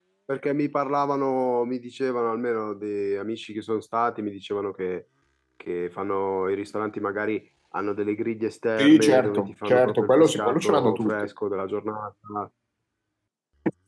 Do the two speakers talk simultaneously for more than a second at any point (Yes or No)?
Yes